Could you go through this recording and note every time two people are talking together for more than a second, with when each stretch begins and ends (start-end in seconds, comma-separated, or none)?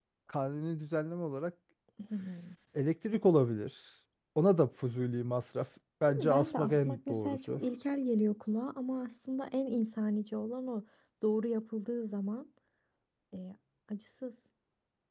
6.1-7.6